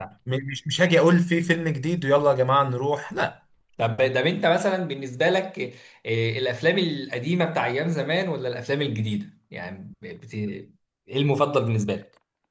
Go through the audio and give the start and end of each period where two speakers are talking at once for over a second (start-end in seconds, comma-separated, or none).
none